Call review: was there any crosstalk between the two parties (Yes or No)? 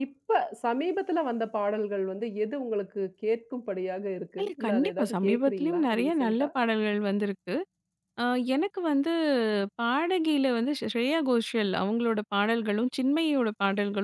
Yes